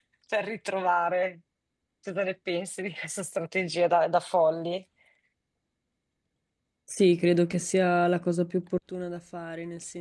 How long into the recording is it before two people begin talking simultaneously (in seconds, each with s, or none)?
none